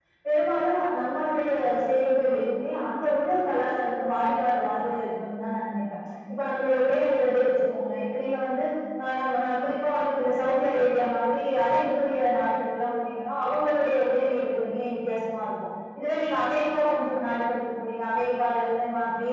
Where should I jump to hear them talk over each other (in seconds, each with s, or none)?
none